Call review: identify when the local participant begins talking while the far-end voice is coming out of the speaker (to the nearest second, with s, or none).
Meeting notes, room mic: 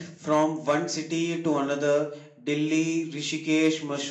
none